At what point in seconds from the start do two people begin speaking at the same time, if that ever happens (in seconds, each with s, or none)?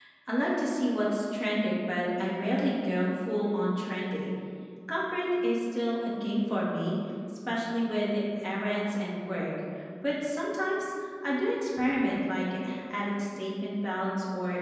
none